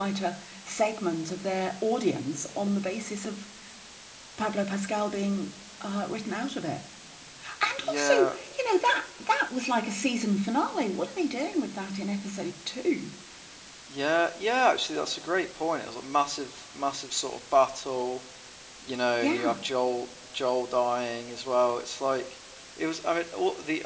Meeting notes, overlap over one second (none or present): none